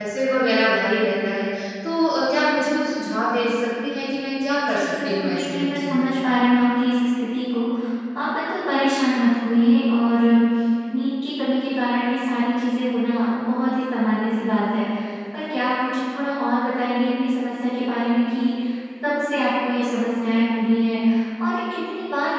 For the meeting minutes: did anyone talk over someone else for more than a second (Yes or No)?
Yes